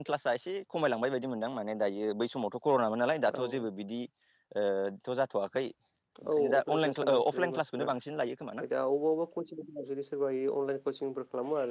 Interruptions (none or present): present